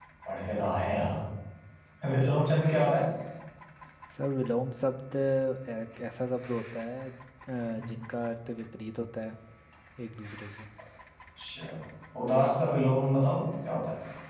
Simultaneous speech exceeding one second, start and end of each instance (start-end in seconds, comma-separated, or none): none